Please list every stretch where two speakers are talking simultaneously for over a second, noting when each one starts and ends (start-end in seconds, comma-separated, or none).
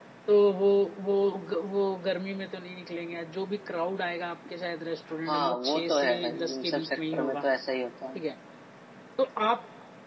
5.3-7.4